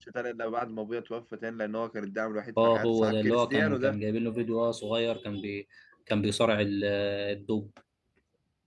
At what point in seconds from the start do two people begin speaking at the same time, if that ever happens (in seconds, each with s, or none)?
2.6 s